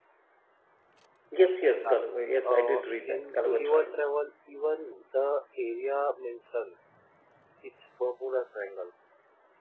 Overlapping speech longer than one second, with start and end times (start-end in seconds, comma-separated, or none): 2.4-4.1